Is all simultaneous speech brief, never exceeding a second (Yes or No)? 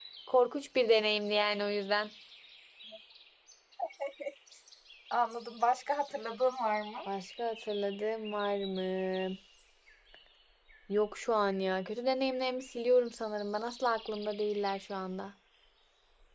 Yes